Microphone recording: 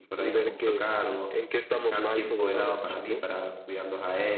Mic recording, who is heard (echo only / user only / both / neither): both